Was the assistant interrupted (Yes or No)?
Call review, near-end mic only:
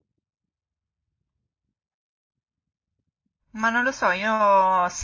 Yes